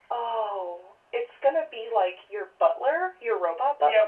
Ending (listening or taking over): taking over